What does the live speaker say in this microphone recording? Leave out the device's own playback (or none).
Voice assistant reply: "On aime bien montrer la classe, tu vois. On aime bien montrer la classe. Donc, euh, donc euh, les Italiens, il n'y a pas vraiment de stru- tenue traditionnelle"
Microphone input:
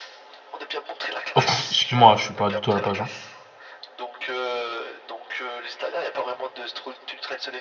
Oh, pff, excuse-moi, je suis pas du tout à la page. hein.